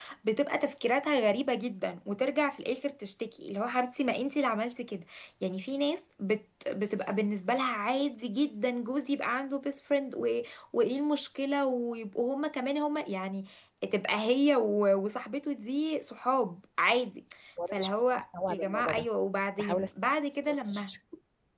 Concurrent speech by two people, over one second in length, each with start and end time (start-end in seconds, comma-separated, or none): 17.7-19.1